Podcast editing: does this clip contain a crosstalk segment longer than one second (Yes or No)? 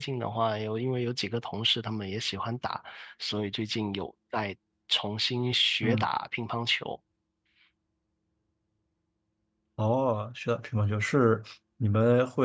No